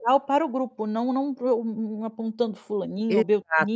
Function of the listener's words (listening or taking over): taking over